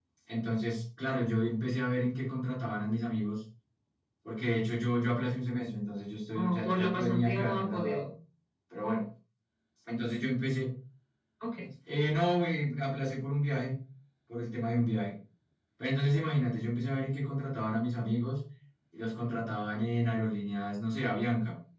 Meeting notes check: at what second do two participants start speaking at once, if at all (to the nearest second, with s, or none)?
6 s